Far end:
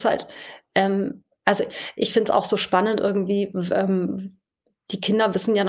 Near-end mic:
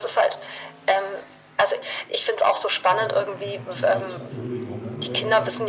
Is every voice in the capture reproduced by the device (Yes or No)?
No